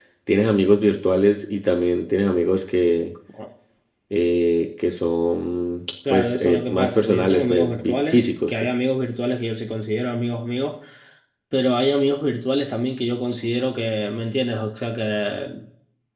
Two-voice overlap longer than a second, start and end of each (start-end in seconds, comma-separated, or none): 6.1-8.5